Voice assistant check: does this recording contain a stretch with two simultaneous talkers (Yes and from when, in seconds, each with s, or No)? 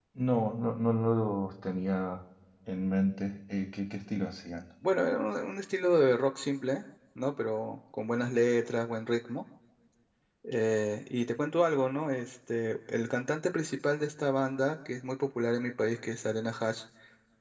No